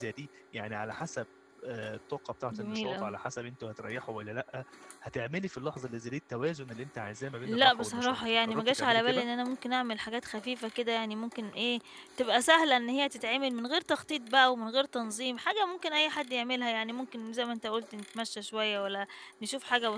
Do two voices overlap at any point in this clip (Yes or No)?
Yes